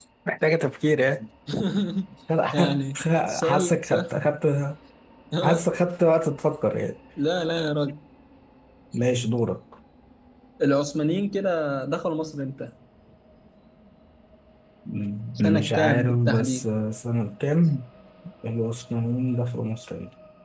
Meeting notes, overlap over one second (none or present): present